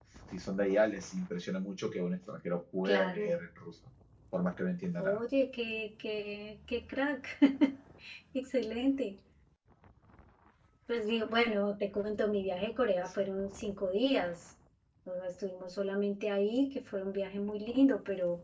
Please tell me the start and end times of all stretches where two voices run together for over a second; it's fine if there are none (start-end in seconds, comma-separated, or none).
none